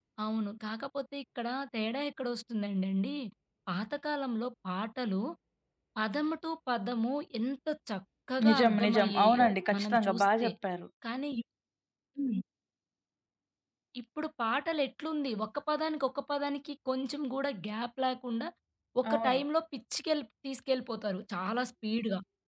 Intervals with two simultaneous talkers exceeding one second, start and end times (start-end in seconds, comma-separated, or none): 8.5-10.5